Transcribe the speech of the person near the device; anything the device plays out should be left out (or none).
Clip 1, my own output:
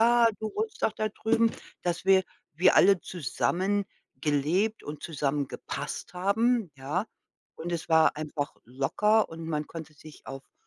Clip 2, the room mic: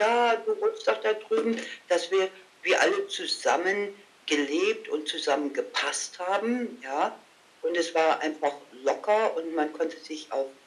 none